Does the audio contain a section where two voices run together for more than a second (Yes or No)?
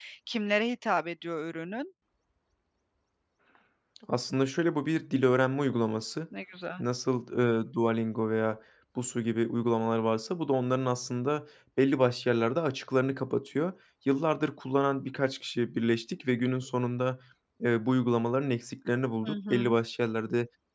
No